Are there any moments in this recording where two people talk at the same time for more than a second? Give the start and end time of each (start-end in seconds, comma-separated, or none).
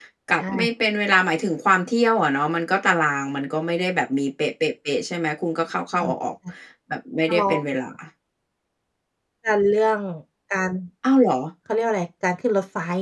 none